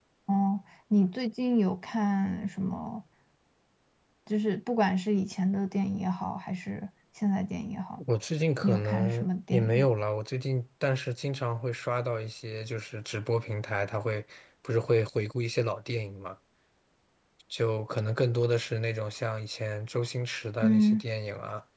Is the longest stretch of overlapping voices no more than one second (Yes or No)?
No